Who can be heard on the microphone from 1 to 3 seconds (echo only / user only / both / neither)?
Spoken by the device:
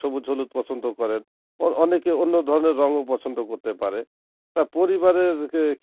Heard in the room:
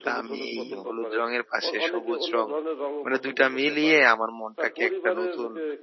both